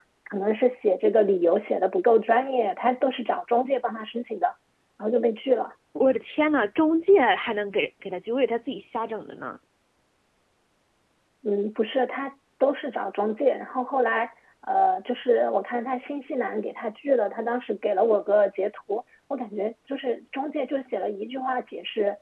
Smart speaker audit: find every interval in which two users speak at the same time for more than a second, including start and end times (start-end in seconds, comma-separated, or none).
none